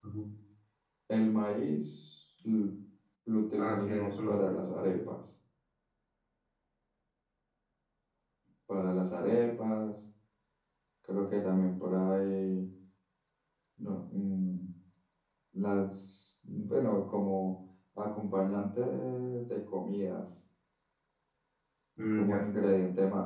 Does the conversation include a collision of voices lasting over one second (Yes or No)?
Yes